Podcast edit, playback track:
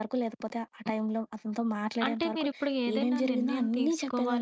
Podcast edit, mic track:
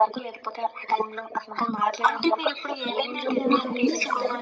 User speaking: Yes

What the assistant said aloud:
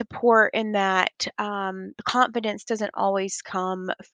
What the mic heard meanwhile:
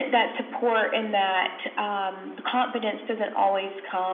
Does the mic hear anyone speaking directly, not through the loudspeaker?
No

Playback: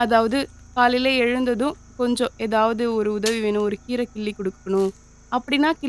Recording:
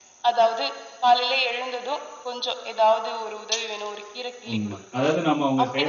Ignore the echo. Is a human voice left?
Yes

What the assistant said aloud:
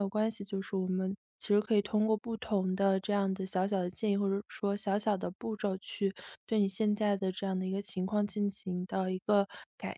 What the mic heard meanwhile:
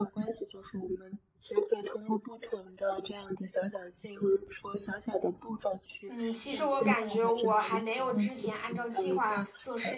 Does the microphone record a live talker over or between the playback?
Yes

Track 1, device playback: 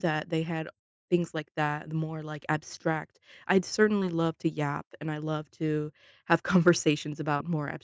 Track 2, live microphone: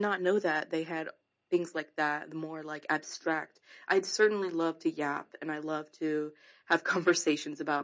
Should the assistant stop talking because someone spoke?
No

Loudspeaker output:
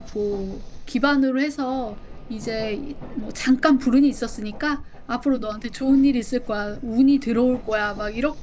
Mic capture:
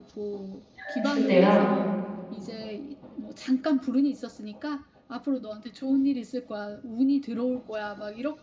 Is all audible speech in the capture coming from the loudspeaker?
No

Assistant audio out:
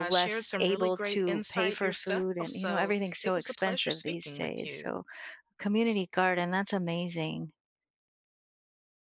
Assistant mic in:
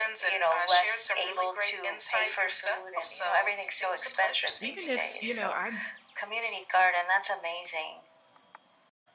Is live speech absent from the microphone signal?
No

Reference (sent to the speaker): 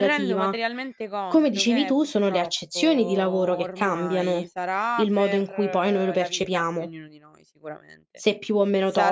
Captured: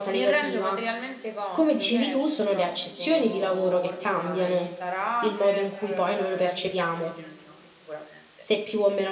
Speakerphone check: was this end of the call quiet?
Yes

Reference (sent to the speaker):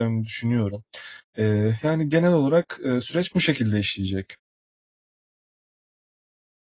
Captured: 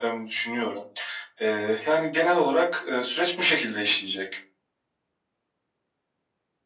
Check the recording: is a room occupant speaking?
No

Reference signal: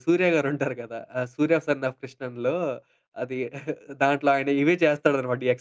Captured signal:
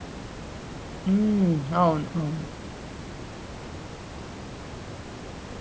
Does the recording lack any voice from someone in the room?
No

